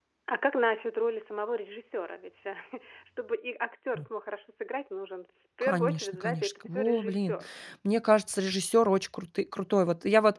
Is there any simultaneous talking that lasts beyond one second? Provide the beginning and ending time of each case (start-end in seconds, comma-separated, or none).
5.6-7.4